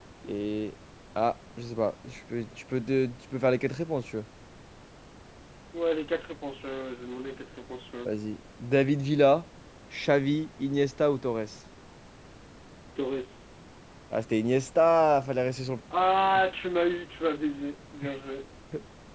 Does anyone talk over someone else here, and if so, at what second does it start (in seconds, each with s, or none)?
none